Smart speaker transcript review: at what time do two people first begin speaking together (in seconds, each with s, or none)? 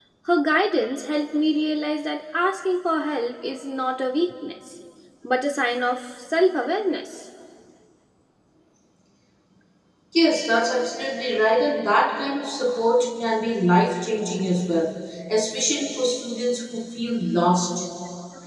none